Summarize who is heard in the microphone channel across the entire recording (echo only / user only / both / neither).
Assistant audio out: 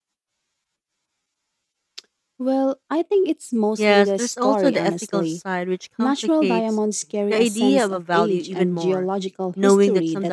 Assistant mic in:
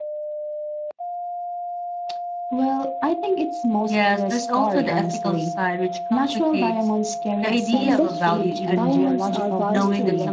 both